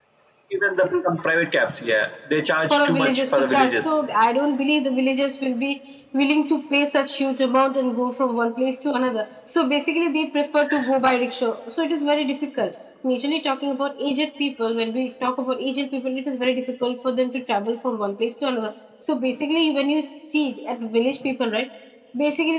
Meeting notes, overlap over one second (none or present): present